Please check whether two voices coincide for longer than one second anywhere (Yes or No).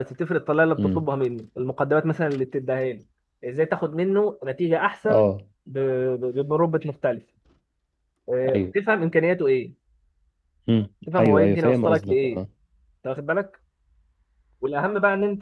Yes